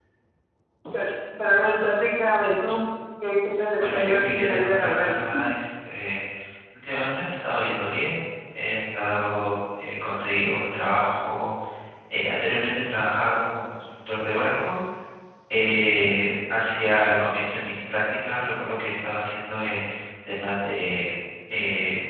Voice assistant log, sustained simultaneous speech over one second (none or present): present